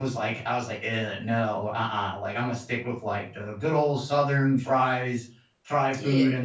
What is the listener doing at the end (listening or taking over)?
listening